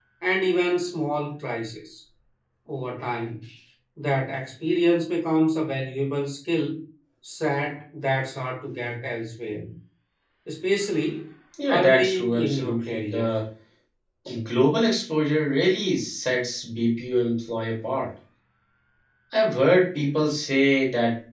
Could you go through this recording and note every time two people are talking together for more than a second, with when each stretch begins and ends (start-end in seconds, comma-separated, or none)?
11.7-13.3